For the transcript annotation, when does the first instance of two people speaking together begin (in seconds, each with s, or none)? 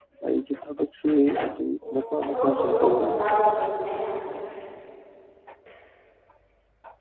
1.8 s